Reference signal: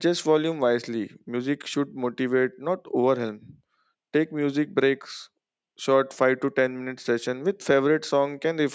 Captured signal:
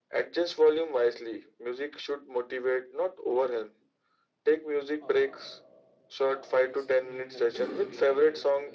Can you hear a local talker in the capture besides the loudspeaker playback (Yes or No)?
Yes